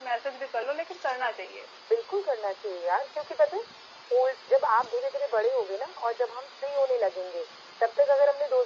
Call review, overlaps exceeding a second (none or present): none